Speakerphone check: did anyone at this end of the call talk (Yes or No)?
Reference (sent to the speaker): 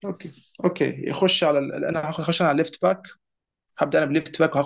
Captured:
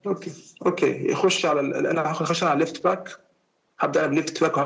No